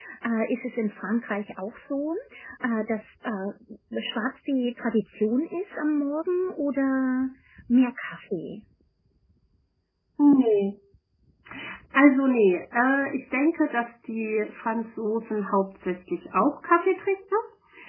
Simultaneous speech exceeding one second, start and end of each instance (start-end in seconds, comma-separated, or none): none